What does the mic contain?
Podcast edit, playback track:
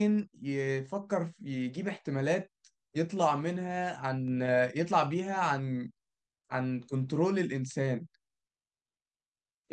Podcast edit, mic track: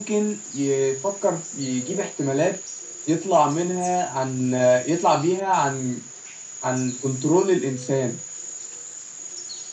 echo only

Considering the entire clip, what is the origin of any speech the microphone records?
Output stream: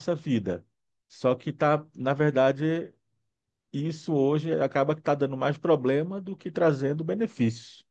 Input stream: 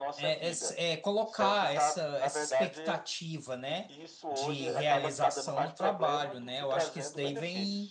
both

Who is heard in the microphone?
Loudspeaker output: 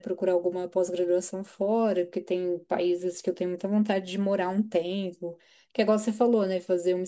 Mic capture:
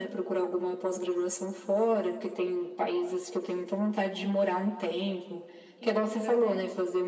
both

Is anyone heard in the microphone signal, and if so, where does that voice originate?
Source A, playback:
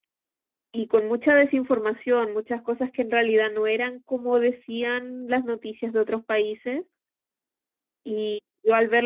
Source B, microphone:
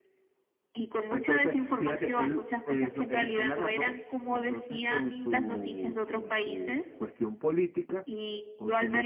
both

